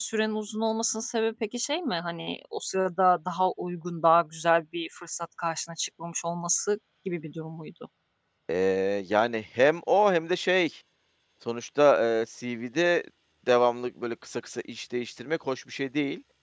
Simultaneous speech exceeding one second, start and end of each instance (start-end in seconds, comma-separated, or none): none